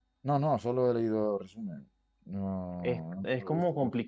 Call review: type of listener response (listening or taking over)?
taking over